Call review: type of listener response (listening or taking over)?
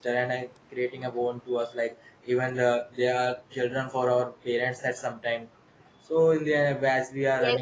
taking over